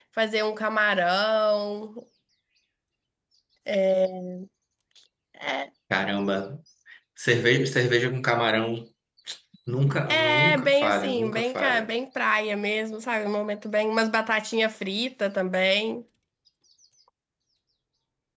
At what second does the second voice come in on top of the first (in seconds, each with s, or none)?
10.1 s